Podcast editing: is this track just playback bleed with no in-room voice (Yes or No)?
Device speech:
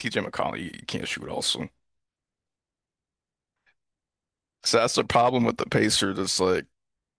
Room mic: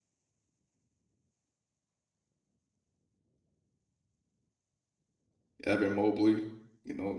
No